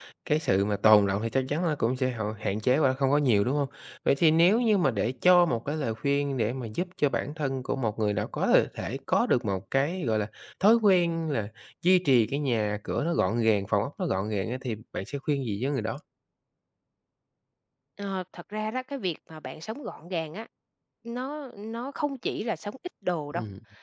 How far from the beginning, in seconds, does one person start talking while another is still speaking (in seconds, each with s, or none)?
none